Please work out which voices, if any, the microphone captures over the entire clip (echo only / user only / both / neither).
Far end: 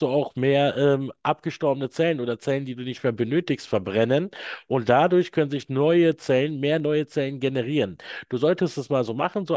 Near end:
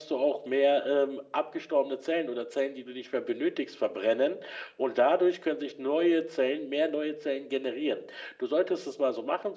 echo only